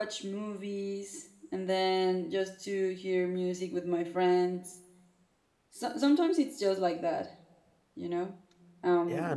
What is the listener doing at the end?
taking over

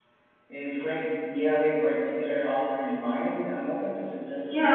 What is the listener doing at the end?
taking over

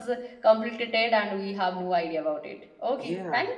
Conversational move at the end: taking over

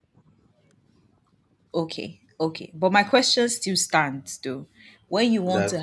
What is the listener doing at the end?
listening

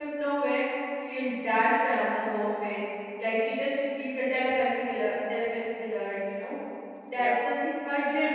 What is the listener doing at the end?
listening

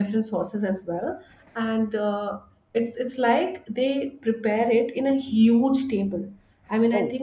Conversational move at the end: listening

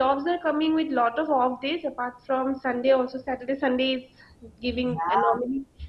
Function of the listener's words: listening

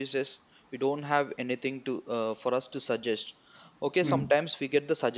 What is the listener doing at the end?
listening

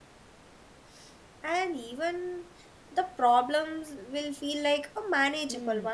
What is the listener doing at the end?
taking over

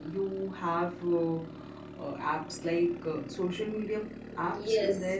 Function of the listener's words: taking over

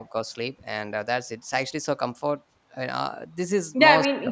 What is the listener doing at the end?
taking over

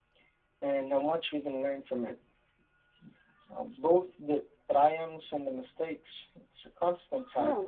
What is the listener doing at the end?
taking over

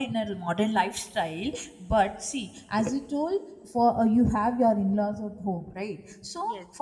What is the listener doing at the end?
listening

